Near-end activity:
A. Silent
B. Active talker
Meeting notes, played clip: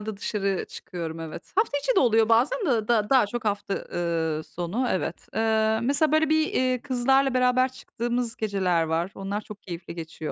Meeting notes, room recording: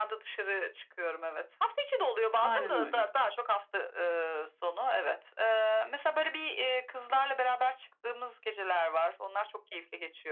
B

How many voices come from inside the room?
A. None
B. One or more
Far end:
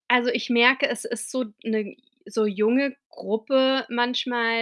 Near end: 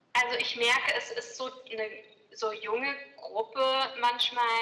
A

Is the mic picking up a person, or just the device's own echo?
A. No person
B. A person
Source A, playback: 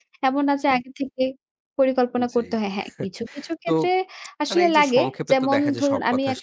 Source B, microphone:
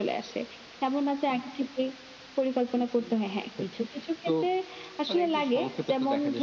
A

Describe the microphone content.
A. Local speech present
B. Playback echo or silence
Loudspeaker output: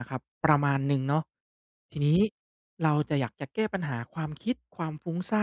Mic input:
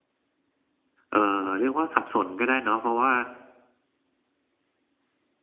A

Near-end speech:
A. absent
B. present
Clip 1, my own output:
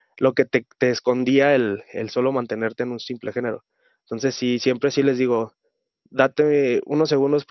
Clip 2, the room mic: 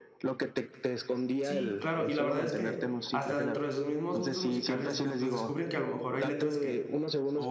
B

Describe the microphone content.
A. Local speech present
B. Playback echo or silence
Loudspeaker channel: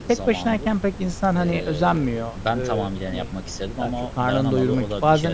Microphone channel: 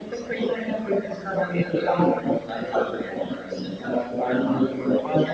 B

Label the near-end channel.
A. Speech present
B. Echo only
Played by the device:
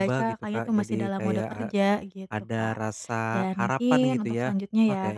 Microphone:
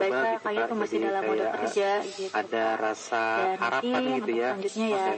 B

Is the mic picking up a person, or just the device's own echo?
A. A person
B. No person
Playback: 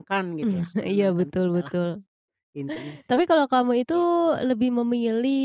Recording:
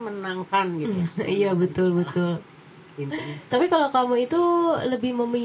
B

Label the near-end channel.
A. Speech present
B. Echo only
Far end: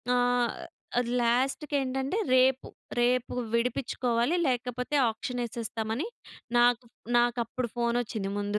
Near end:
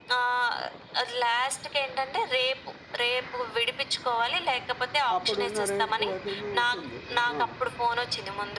A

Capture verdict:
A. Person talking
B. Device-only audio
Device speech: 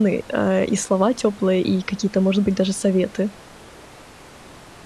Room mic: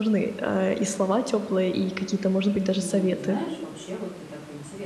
A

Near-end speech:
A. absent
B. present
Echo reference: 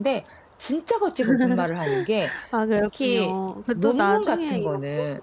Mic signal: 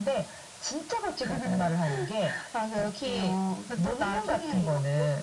A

